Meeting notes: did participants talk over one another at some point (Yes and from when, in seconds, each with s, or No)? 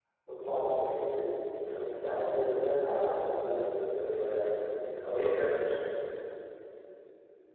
Yes, from 1.6 s